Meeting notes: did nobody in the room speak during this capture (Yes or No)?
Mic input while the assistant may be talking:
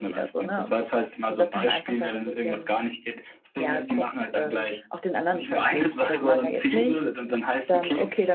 No